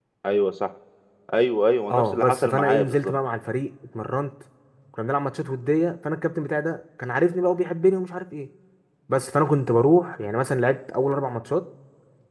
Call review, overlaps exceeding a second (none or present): present